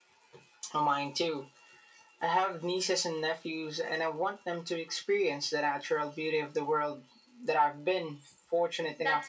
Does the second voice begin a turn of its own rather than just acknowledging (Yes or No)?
Yes